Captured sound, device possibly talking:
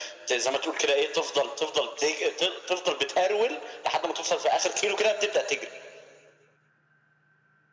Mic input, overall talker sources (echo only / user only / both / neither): echo only